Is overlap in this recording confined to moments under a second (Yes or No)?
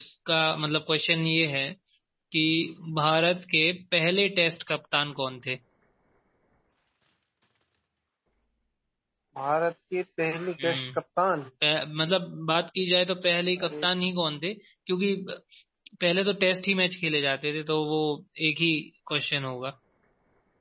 Yes